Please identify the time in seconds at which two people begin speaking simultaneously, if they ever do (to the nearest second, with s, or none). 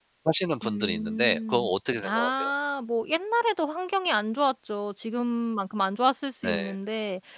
1 s